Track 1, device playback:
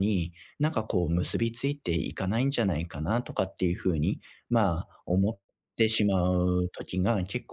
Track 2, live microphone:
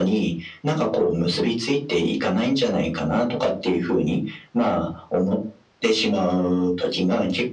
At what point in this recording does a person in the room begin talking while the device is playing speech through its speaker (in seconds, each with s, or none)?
none